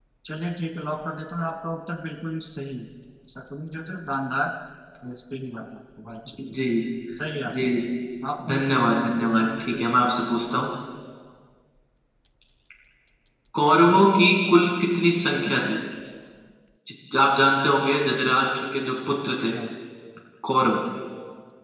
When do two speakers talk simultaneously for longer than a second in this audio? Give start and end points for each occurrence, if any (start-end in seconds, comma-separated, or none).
8.5-9.8